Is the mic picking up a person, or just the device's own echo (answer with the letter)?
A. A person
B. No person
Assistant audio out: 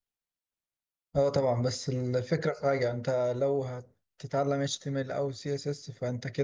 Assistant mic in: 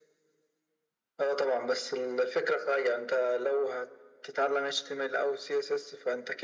B